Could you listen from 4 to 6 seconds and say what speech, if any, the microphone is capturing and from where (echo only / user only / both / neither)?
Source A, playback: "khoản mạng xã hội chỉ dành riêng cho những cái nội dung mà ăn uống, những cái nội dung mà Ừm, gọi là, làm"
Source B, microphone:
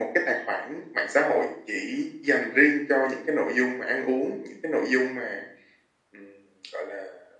echo only